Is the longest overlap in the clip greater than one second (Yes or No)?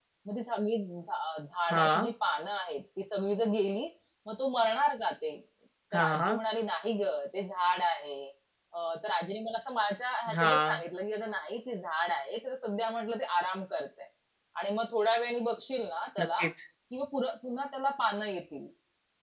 No